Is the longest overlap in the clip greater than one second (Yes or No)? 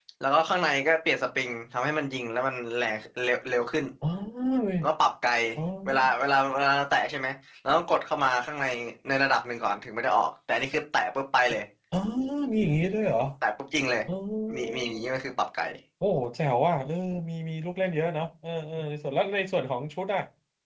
No